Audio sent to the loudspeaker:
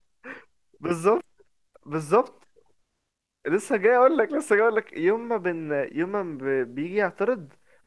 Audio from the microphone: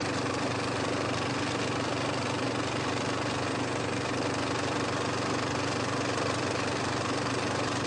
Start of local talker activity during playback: none

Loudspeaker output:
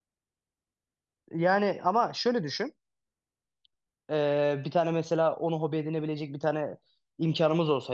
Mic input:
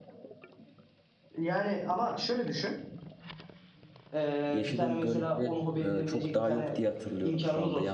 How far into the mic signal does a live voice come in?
4.5 s

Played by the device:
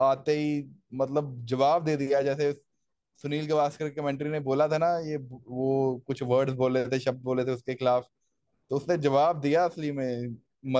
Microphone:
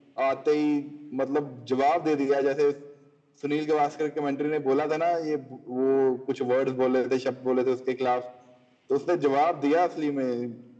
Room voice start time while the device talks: none

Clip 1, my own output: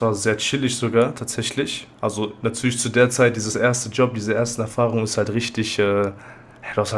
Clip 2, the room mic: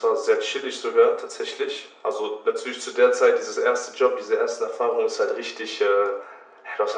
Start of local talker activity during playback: none

